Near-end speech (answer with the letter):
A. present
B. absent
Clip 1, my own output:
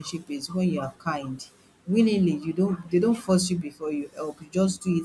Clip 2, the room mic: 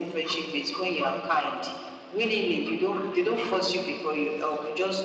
B